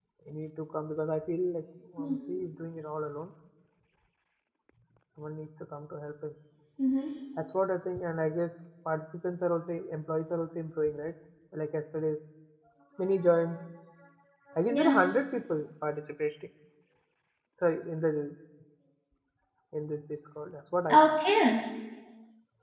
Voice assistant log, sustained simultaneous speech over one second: none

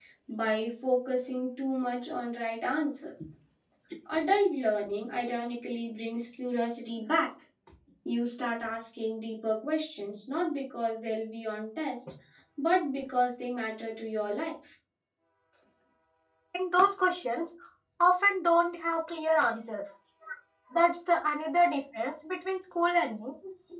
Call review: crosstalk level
none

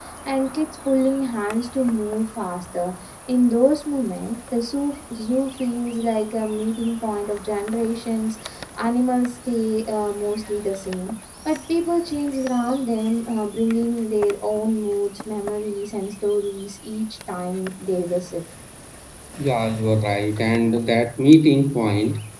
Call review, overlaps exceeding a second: none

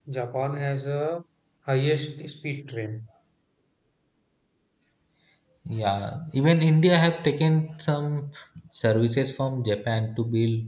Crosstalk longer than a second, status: none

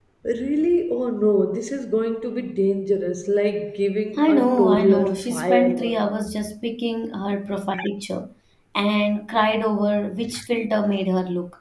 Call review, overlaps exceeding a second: present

